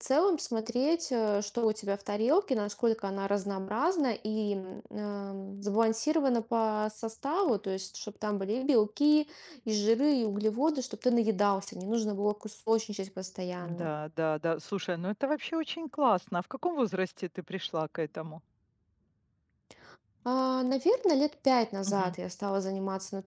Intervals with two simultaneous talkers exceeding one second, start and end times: none

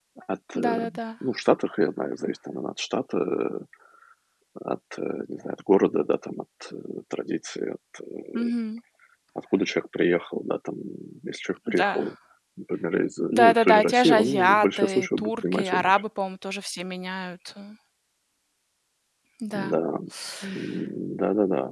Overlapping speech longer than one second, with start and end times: 13.4-16.0

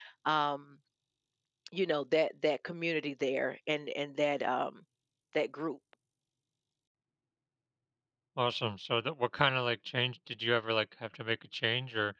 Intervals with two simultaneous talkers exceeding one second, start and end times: none

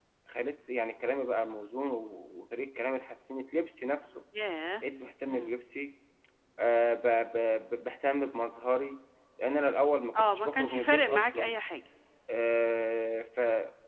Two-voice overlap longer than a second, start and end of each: 10.2-11.5

